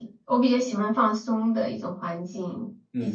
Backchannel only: No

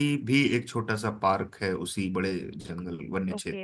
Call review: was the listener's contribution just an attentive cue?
No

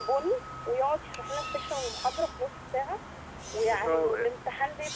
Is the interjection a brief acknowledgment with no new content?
Yes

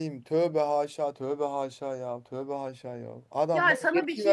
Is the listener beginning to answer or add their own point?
Yes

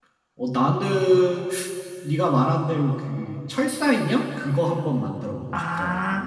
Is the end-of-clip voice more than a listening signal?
Yes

